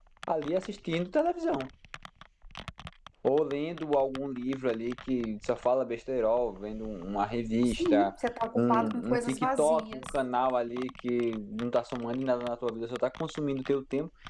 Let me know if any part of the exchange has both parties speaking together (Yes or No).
Yes